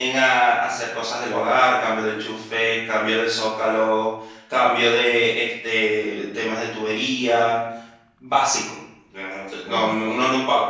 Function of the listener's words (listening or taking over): listening